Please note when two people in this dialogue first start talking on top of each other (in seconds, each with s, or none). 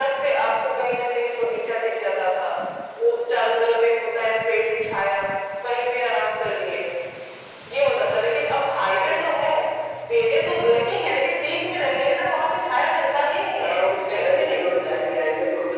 13.6 s